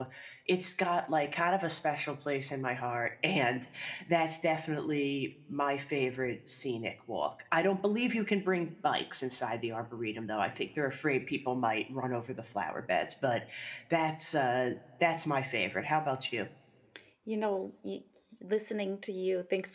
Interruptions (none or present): none